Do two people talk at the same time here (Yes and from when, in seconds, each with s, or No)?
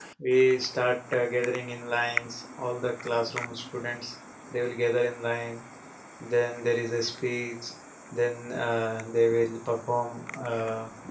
No